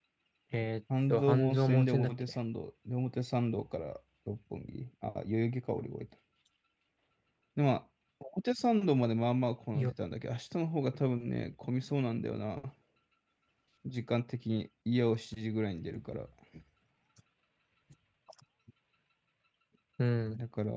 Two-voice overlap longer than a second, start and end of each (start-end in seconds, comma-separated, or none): 1.1-2.3